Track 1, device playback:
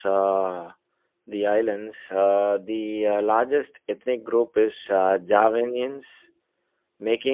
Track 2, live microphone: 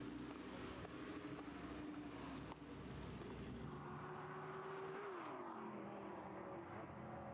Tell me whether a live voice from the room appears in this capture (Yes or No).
No